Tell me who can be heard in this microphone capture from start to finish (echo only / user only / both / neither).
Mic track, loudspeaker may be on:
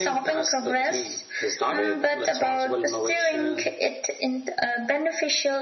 echo only